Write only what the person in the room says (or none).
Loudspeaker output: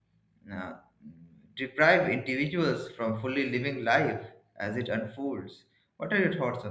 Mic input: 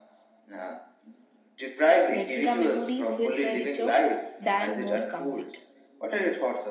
making a memory feels richer than more complete.